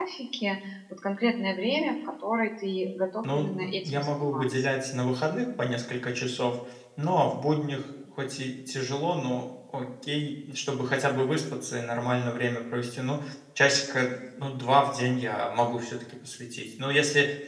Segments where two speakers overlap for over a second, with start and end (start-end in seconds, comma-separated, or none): 3.2-4.5